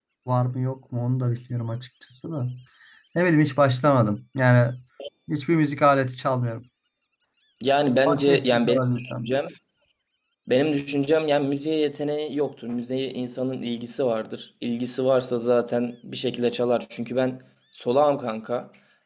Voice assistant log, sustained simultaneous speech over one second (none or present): present